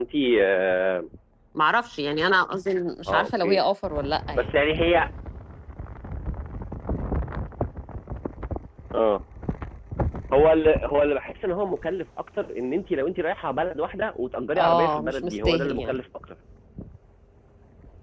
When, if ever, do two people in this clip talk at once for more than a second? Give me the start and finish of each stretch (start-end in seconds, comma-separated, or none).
14.6-16.0